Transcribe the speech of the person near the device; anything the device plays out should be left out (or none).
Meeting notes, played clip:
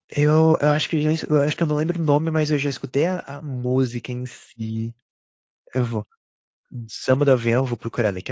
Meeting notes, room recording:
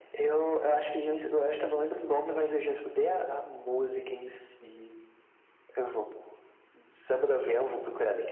none